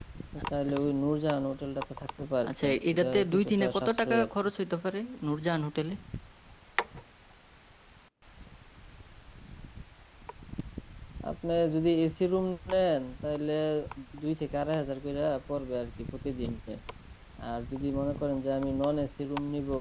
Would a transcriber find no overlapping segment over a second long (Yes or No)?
No